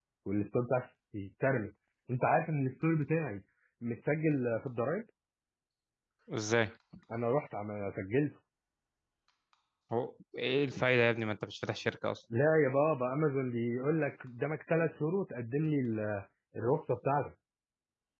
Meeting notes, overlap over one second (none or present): none